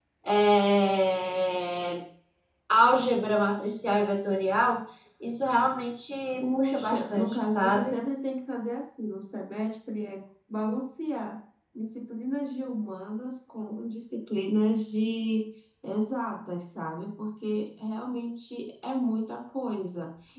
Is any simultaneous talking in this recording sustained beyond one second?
Yes, from 6.5 s

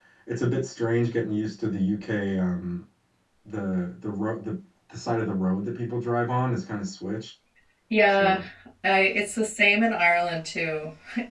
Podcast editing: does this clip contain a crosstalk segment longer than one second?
No

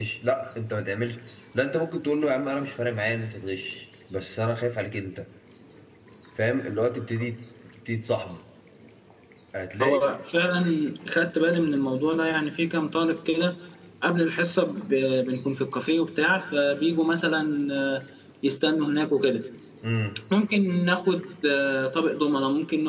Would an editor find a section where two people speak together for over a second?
No

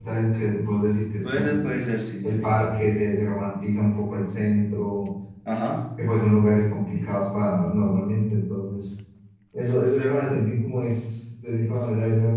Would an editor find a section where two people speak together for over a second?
No

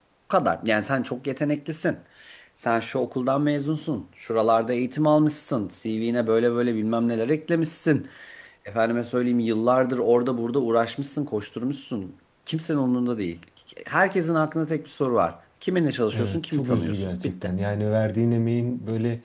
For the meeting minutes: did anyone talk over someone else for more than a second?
Yes, from 16.1 s

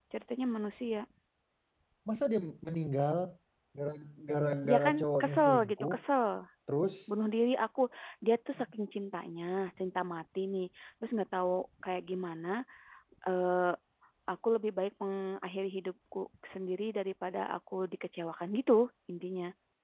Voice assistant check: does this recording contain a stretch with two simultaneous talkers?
Yes, from 4.6 s

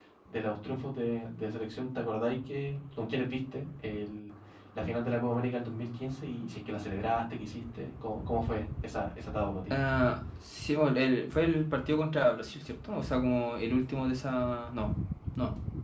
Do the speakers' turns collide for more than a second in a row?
No

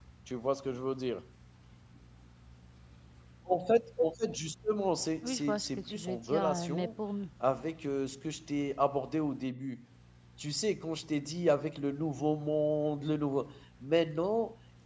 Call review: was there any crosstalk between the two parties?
Yes, from 5.2 s

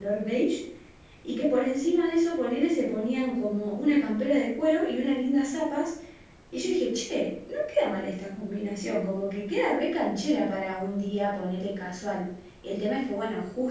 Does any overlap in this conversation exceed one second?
No

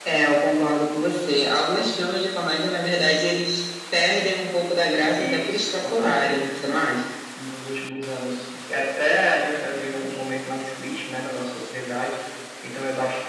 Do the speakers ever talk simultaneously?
Yes, from 5.1 s

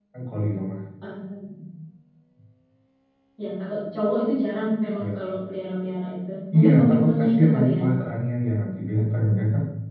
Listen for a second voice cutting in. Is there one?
Yes, from 6.5 s

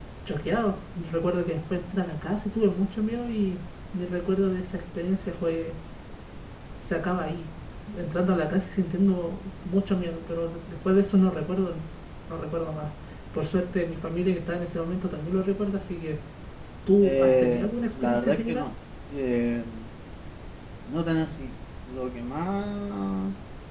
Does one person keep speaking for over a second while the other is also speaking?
Yes, from 17.0 s

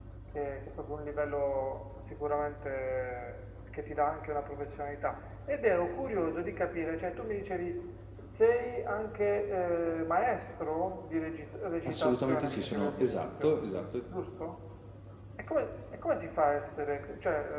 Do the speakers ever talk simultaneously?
Yes, from 11.8 s

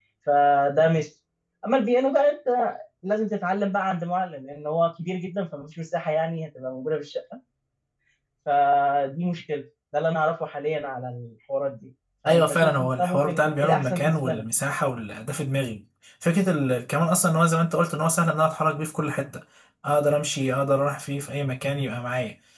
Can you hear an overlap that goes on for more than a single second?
Yes, from 12.2 s

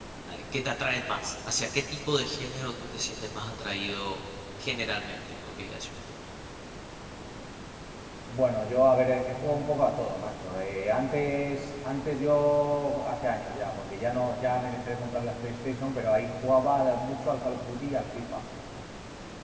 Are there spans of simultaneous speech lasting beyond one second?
No

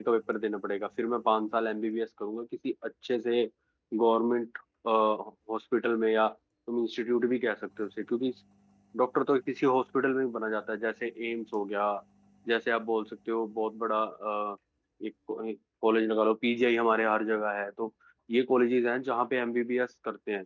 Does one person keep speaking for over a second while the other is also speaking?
No

